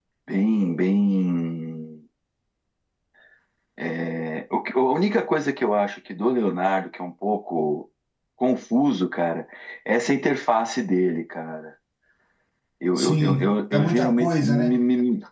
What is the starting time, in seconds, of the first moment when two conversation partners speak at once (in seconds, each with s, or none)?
13.0 s